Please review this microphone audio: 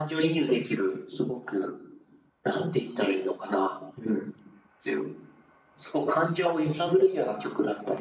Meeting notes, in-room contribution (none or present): none